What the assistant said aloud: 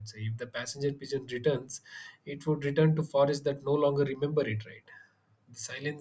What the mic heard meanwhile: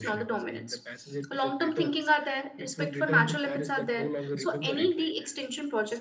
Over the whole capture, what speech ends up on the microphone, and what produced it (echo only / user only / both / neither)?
both